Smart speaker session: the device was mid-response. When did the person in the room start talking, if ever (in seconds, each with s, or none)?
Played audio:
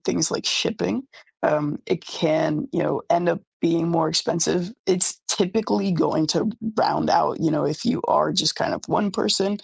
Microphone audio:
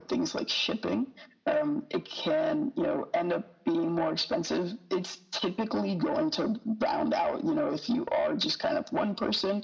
none